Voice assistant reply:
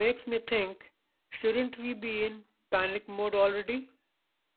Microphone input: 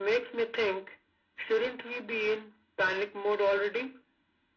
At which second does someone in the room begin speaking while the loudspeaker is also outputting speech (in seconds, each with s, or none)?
none